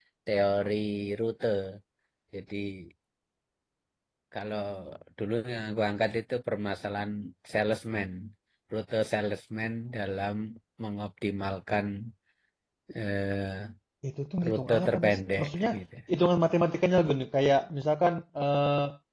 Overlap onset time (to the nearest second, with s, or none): 14 s